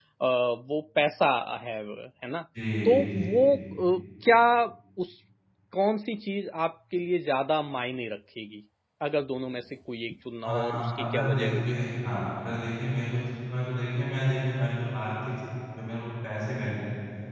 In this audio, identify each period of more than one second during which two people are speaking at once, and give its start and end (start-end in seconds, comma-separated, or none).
10.4-11.7